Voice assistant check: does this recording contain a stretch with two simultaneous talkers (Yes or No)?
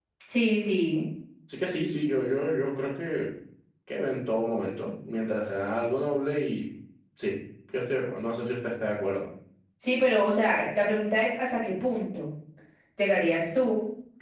No